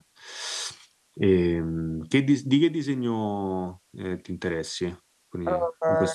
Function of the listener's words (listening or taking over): taking over